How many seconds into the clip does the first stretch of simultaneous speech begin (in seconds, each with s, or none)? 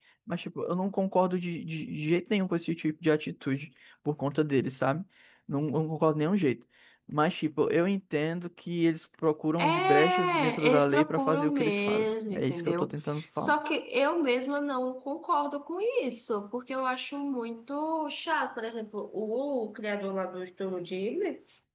9.6 s